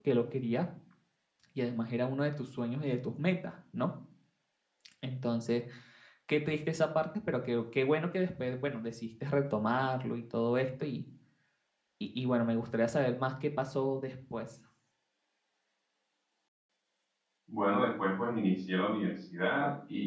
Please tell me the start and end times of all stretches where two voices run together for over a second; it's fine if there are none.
none

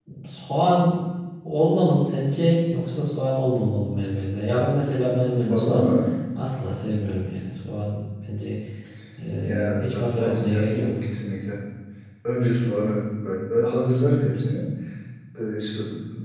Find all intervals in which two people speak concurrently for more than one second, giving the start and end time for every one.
9.4-10.9

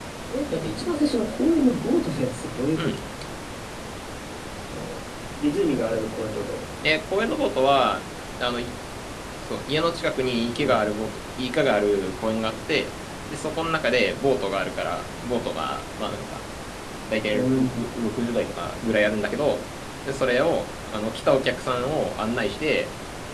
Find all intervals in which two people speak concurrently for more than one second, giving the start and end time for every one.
none

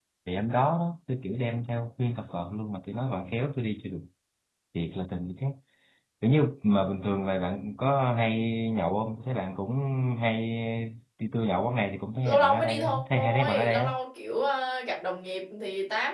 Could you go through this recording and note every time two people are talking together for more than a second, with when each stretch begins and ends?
12.2-13.9

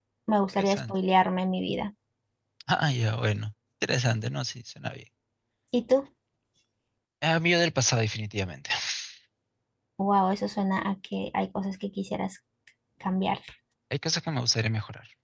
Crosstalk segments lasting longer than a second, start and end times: none

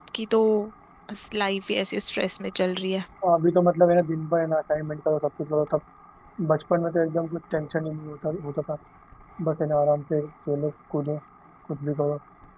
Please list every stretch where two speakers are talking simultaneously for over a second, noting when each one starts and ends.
none

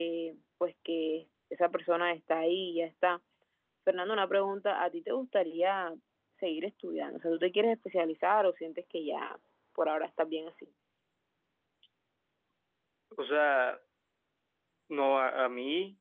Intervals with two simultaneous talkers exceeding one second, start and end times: none

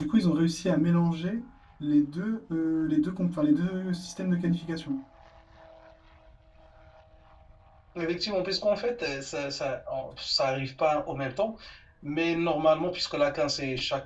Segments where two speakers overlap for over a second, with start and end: none

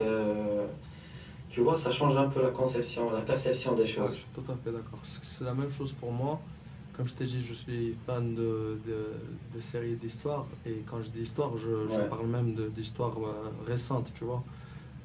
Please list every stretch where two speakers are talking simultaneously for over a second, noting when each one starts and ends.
none

